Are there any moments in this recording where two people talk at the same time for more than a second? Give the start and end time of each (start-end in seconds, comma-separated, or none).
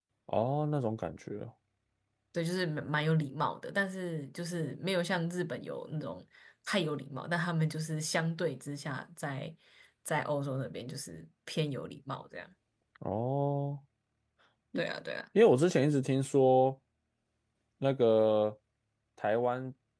none